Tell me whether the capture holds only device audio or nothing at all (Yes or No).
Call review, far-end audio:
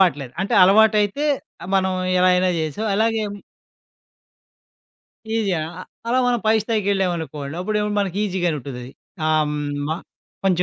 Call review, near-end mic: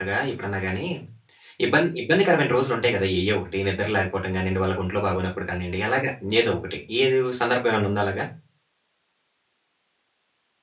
No